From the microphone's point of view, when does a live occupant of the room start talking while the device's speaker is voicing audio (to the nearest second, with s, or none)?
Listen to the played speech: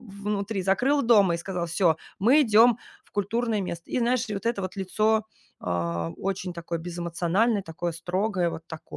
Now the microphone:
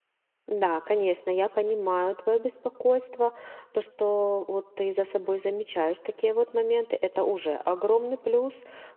0 s